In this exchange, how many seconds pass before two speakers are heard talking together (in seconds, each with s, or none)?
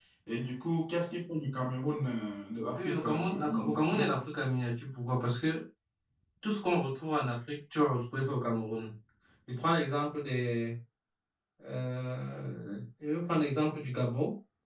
2.7 s